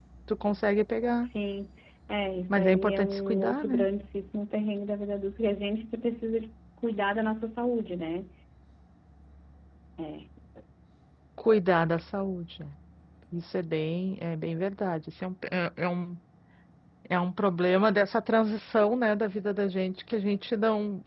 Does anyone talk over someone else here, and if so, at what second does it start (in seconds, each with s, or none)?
2.5 s